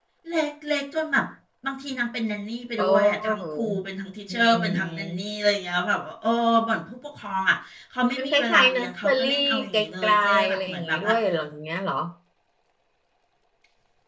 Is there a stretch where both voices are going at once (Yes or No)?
Yes